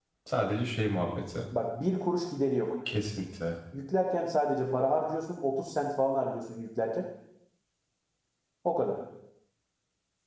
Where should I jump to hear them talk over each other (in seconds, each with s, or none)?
none